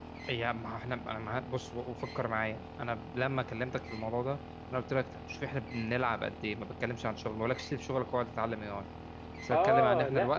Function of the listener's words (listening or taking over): taking over